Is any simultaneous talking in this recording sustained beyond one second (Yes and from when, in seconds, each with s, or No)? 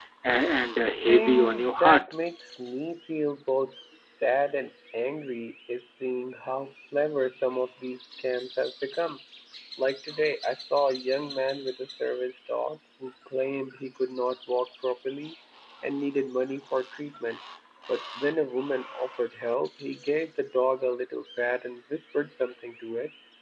Yes, from 0.8 s